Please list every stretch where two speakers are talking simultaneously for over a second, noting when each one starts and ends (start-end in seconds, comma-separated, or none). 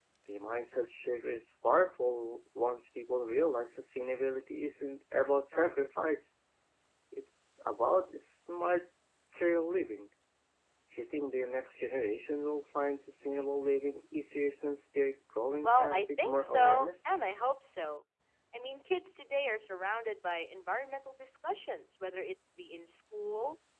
15.6-16.9